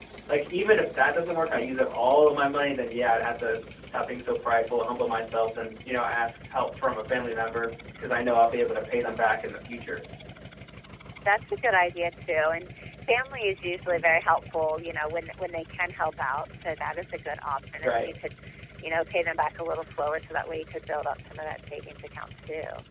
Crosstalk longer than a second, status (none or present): none